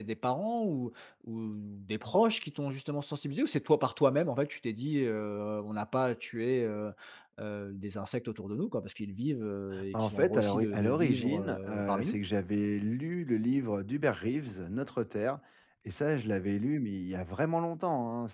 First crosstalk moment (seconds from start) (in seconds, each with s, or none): 9.7 s